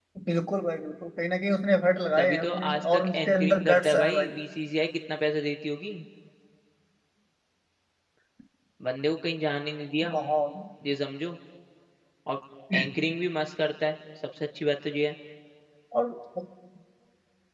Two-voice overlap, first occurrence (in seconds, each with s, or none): 2.1 s